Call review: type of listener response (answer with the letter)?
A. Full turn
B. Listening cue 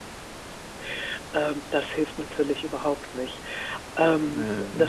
B